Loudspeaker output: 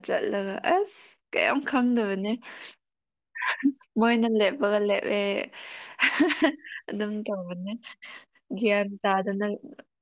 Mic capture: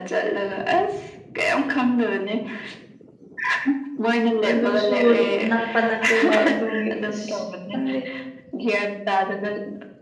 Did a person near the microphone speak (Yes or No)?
Yes